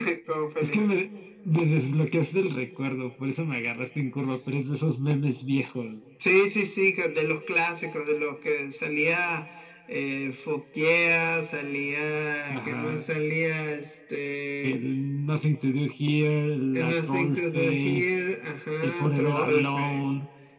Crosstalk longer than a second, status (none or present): present